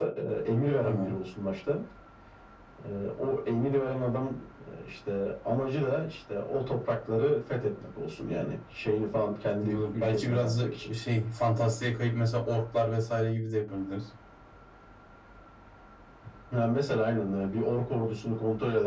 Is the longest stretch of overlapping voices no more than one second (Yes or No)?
No